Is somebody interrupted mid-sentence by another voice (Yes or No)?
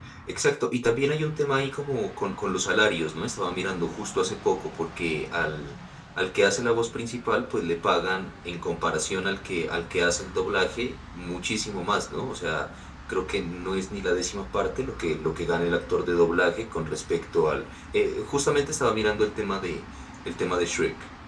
No